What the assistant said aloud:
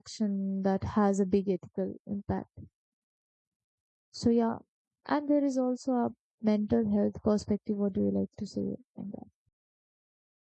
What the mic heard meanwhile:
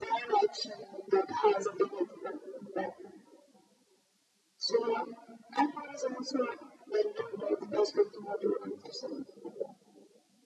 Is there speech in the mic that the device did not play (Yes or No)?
No